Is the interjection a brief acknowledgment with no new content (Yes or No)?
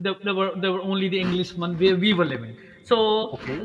Yes